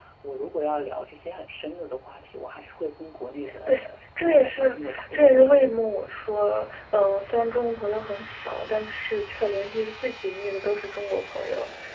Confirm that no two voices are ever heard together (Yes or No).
No